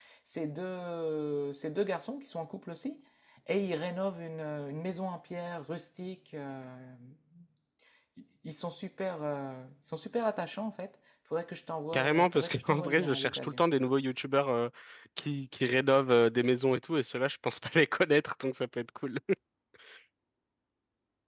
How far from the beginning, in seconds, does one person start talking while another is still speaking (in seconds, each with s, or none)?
11.9 s